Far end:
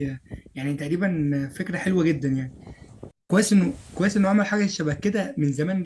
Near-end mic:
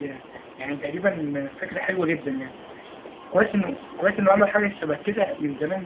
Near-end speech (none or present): none